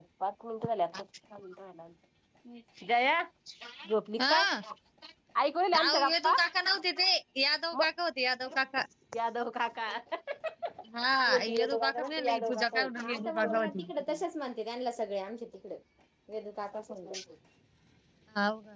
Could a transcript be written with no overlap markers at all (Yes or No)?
No